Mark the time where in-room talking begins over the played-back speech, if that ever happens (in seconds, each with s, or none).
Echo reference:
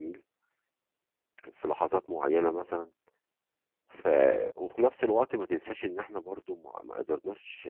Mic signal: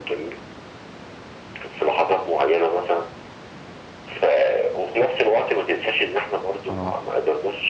6.7 s